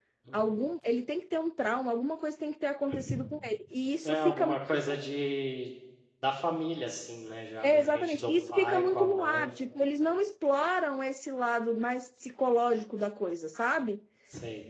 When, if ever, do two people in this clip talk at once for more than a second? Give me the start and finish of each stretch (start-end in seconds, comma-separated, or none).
7.6-9.5